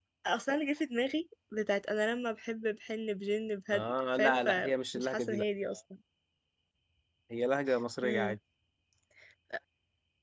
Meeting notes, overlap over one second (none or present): present